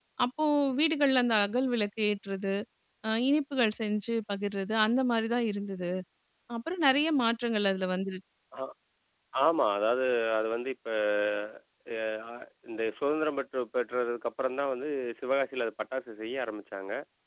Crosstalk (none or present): none